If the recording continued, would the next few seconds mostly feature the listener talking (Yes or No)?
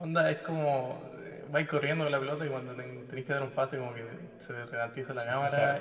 Yes